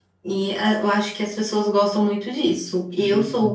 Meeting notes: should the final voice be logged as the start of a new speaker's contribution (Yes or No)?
No